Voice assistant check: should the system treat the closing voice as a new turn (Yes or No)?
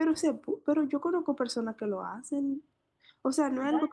No